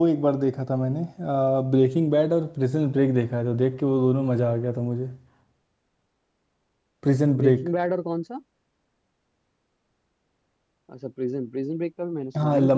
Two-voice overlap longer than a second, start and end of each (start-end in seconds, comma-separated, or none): none